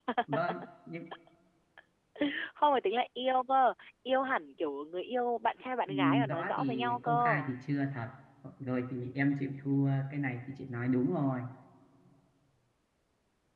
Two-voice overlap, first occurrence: 5.9 s

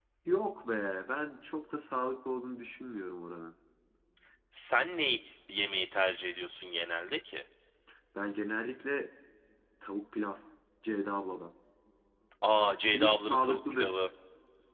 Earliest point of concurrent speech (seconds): 12.6 s

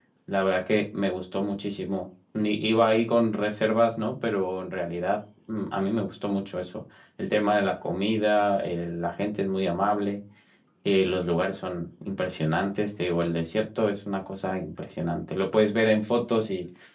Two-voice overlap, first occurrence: none

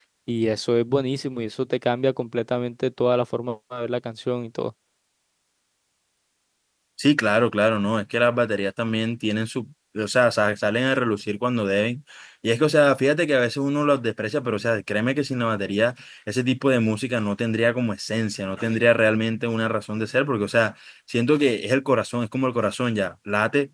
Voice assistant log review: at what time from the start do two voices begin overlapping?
none

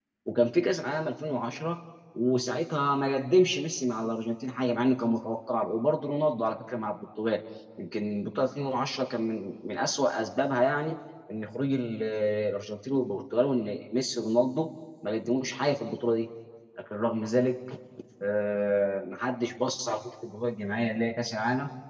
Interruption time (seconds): none

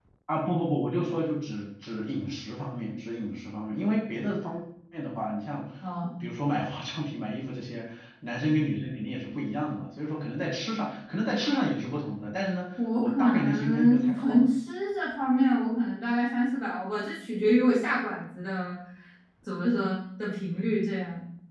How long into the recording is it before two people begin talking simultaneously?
12.8 s

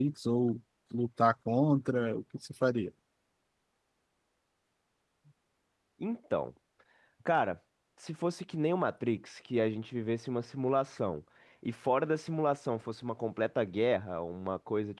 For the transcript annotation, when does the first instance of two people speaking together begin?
none

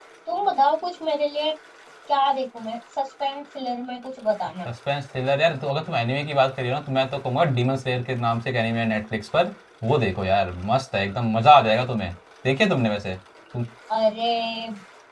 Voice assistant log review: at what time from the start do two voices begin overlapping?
none

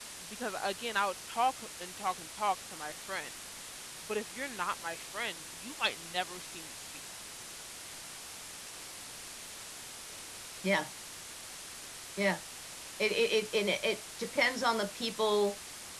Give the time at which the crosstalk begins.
none

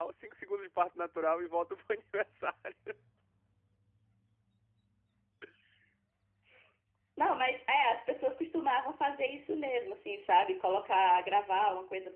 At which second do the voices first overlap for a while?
none

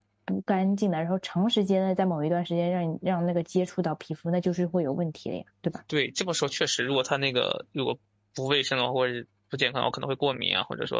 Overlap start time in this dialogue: none

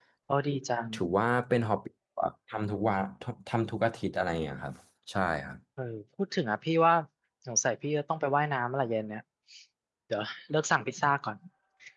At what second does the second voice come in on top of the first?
none

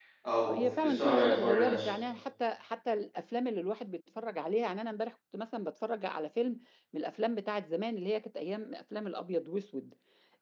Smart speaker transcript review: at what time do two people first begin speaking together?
0.5 s

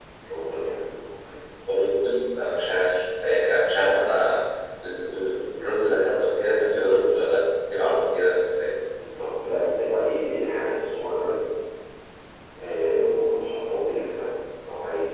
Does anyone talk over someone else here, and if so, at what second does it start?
none

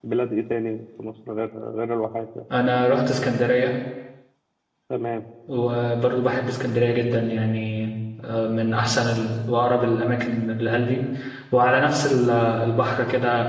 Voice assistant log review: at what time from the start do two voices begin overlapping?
none

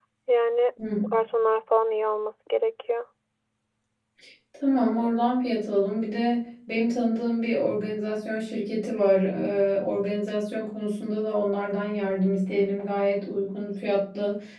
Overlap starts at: none

